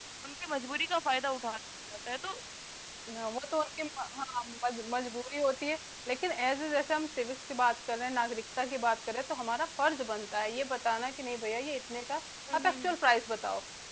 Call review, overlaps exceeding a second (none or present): none